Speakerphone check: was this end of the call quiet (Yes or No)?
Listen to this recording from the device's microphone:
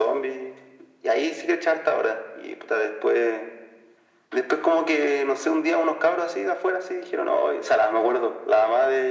Yes